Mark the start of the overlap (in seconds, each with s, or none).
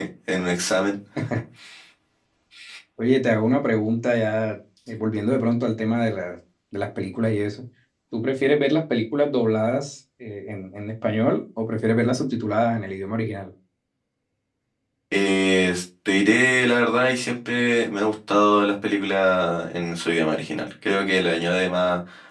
none